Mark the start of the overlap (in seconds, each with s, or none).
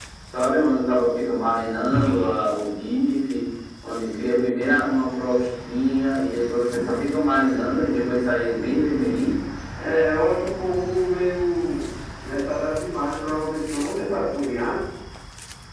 none